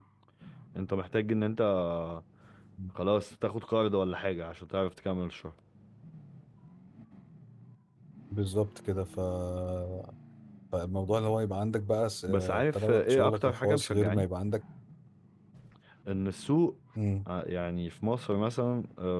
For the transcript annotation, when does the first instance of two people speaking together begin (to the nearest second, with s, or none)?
12 s